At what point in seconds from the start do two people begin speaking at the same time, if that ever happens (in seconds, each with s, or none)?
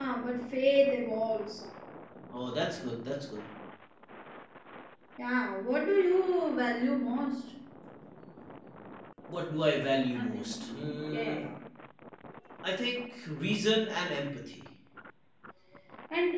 10.1 s